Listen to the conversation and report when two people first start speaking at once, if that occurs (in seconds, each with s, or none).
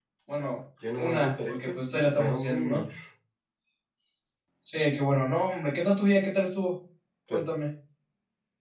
1.0 s